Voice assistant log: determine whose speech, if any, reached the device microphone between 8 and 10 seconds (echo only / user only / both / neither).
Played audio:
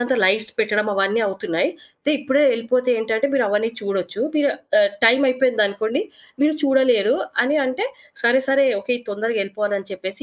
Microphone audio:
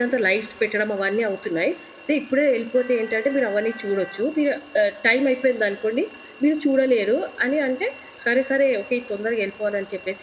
echo only